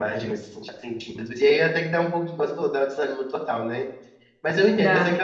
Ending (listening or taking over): listening